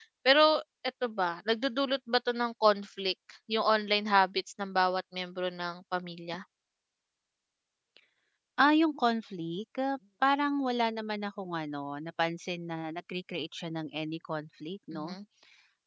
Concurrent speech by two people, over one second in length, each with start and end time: none

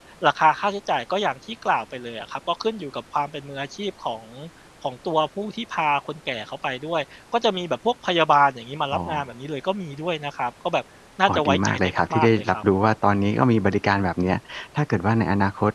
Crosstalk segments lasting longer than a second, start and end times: 11.3-12.6

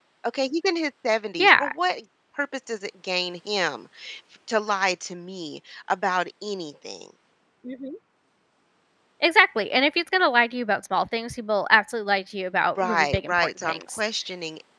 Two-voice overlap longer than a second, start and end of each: 12.8-14.0

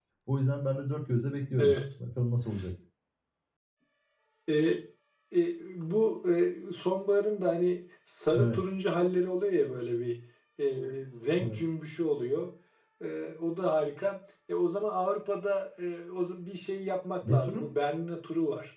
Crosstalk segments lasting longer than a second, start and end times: none

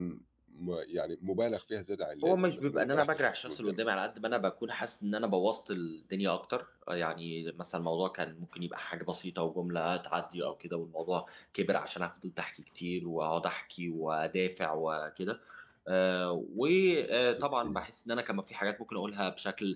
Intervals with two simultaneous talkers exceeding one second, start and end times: 2.2-3.8

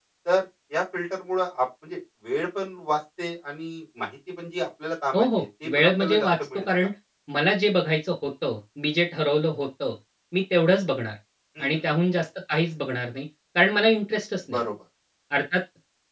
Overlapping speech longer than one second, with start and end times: 5.1-6.8

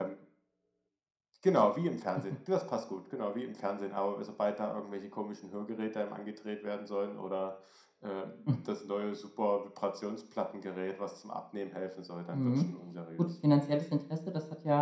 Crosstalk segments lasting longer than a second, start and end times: none

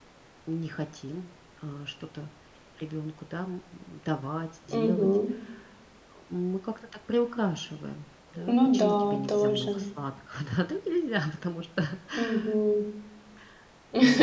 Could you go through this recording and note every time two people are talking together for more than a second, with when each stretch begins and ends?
8.5-9.8

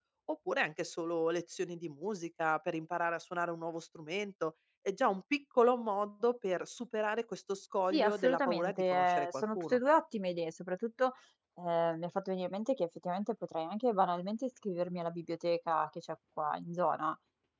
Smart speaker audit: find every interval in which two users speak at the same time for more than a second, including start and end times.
7.9-9.8

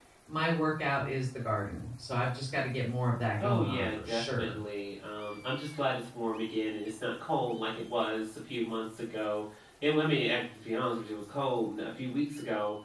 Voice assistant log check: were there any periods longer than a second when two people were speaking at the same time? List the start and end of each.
3.4-4.6

